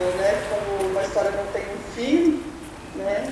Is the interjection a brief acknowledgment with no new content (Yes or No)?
No